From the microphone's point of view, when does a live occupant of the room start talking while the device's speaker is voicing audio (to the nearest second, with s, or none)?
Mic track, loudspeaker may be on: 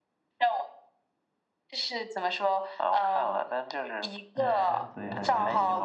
4 s